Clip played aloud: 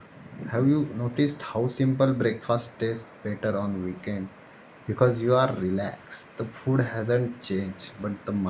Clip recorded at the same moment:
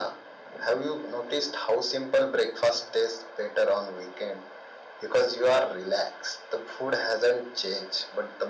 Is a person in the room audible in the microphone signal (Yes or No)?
No